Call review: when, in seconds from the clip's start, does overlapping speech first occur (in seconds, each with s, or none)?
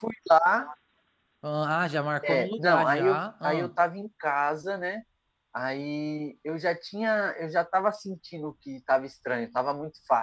2.2 s